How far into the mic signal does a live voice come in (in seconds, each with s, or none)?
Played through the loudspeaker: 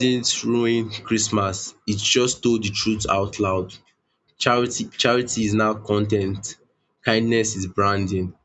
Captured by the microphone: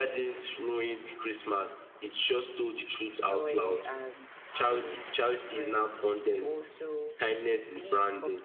3.2 s